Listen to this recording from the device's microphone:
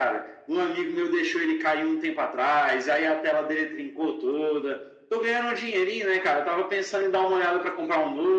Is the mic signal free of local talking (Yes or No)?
Yes